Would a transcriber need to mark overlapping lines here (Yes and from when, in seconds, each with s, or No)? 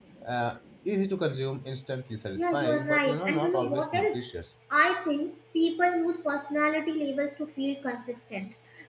Yes, from 2.4 s